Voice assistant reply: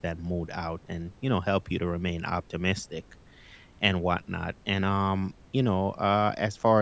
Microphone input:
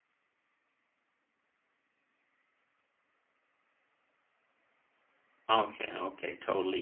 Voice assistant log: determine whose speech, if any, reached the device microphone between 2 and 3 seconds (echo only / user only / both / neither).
neither